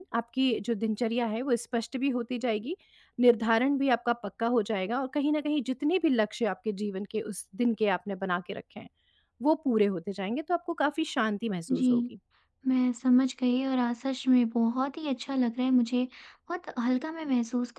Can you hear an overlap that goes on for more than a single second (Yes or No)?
No